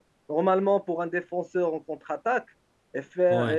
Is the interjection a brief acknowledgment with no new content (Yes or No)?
Yes